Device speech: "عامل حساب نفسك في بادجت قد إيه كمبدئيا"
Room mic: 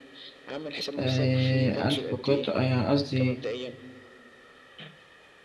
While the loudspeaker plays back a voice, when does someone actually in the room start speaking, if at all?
1.0 s

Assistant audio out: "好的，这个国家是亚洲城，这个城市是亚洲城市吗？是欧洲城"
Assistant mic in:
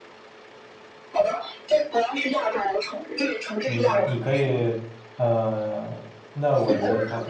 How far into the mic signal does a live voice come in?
3.6 s

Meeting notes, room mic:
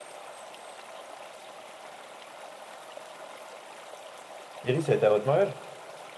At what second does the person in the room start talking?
4.6 s

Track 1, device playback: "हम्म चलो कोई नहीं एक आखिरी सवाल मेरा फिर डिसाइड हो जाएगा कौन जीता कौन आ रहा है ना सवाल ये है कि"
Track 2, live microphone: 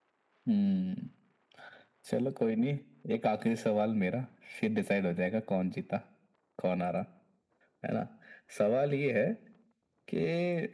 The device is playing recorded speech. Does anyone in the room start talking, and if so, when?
none

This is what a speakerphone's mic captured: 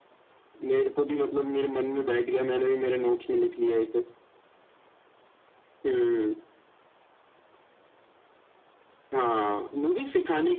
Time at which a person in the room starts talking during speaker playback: none

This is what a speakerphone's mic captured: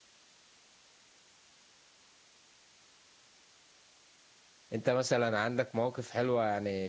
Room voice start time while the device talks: 4.7 s

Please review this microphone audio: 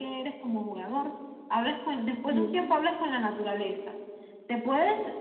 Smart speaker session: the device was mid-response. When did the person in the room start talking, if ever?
2.3 s

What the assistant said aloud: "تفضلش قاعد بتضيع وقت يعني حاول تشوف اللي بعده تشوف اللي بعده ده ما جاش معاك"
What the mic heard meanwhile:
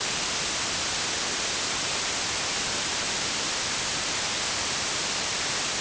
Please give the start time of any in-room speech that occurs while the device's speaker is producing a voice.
none

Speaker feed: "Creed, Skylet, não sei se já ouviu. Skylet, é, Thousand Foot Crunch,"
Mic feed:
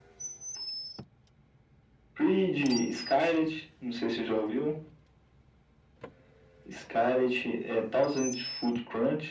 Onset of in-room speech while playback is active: none

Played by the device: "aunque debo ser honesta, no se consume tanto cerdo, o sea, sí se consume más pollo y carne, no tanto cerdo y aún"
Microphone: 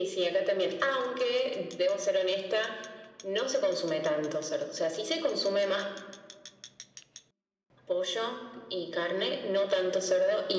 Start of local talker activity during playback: none

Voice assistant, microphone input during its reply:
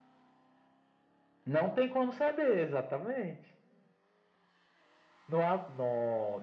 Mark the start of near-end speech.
none

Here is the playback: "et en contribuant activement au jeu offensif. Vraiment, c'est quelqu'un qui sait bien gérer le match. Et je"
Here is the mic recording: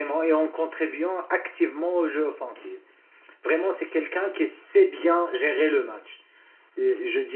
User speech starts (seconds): none

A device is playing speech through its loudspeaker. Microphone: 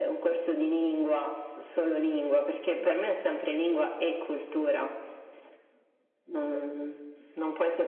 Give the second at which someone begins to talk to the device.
2.6 s

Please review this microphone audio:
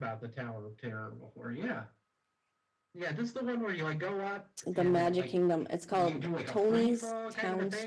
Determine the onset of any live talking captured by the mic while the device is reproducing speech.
4.6 s

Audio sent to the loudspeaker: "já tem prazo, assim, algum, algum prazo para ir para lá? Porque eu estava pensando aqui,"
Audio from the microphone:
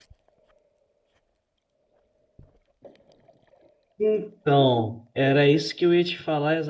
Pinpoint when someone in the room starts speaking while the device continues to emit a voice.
4.0 s

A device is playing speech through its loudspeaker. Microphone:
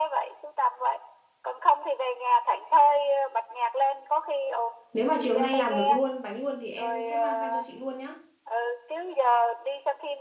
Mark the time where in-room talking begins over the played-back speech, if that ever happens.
4.9 s

